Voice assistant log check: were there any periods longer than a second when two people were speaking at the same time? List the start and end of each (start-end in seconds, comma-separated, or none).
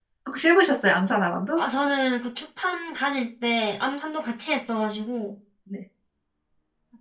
none